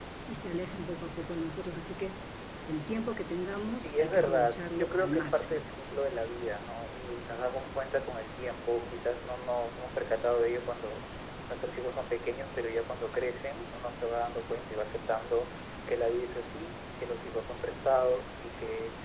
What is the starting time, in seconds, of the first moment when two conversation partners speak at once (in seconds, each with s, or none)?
3.8 s